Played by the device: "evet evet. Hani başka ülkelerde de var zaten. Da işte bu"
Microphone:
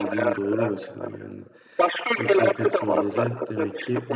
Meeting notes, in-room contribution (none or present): present